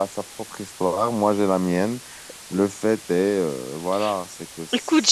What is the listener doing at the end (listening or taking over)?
taking over